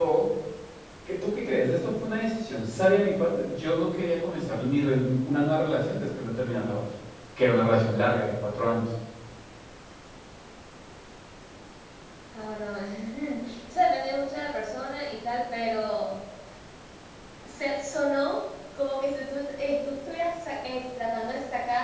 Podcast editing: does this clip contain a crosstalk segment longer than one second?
No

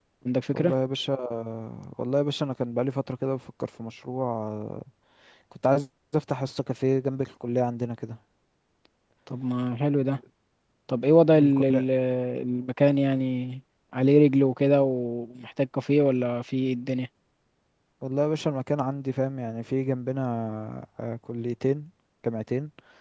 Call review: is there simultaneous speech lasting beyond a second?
No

